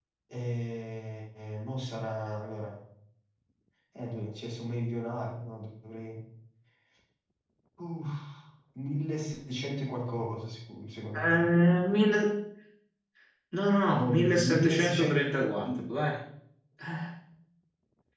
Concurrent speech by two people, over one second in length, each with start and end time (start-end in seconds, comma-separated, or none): 13.9-15.3